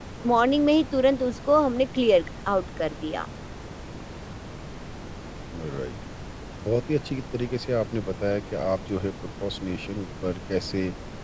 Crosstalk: none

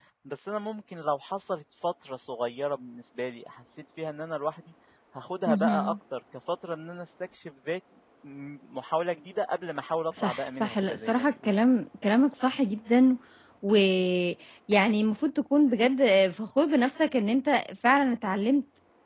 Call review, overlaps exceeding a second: present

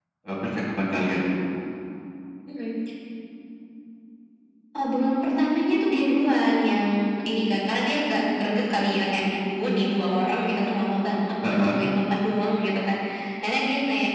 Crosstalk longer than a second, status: none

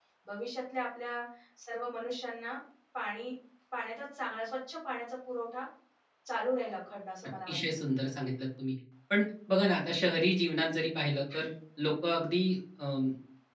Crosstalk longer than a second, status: none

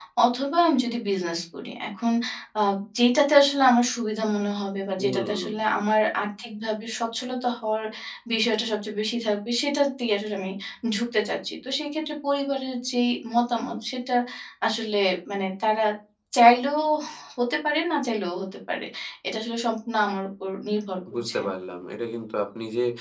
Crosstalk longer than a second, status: none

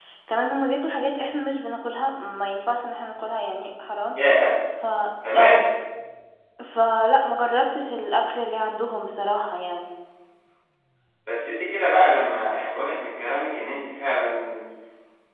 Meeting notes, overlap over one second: none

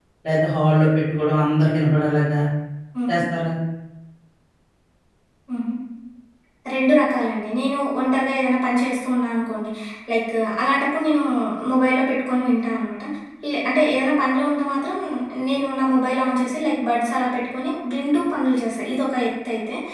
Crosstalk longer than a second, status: none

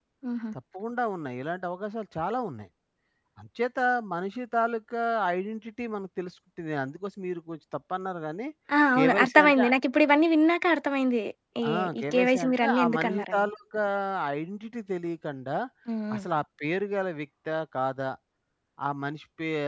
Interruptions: present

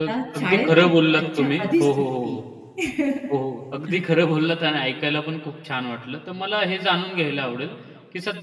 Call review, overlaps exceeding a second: present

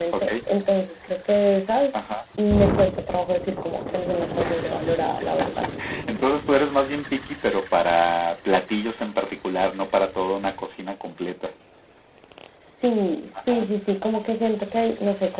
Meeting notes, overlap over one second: none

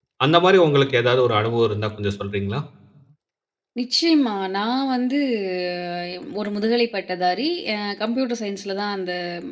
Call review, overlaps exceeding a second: none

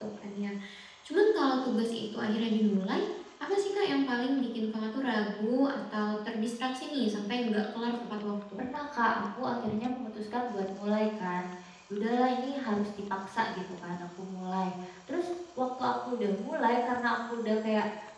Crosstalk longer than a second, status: none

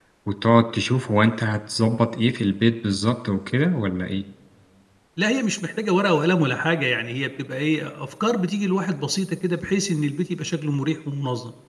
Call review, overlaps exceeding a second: none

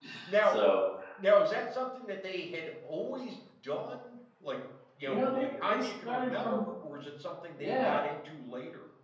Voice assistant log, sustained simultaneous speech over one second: present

